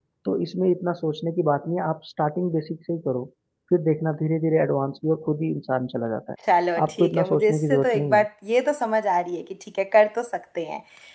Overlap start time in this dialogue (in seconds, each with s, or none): 6.8 s